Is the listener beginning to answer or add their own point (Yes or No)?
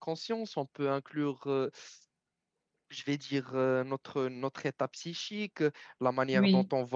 No